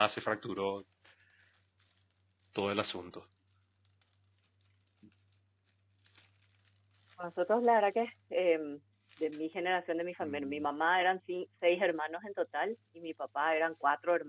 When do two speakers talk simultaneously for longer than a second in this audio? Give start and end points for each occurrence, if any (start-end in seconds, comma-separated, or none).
none